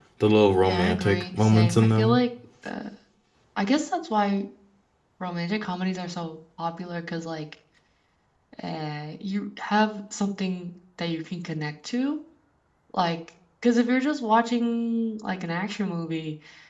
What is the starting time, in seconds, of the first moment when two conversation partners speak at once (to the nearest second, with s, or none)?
1 s